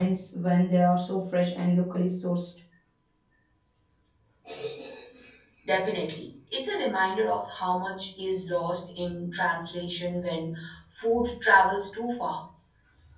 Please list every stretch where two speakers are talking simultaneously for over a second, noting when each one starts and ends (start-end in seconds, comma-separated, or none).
none